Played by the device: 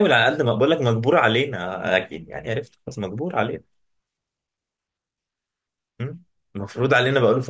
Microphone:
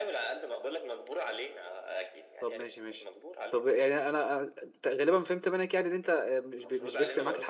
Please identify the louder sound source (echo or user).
user